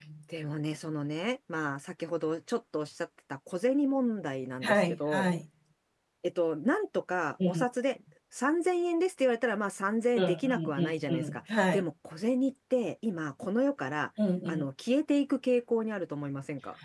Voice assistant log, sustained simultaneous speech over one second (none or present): present